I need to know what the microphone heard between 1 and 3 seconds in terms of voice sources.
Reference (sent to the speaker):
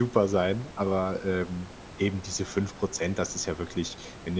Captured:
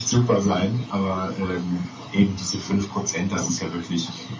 echo only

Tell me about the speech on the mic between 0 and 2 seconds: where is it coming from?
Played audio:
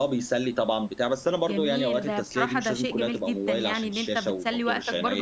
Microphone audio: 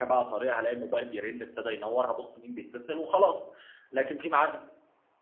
user only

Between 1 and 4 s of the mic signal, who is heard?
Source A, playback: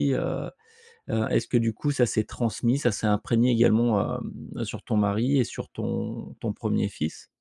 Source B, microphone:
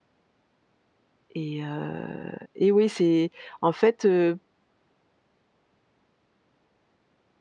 user only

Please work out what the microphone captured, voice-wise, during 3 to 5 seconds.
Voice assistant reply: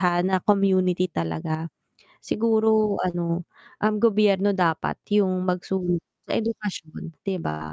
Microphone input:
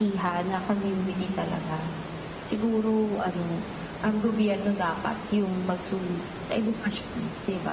echo only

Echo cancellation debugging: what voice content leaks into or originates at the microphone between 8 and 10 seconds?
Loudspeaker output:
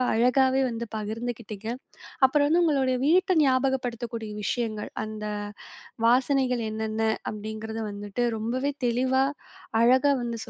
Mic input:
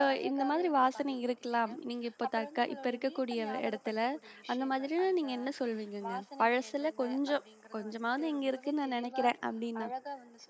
both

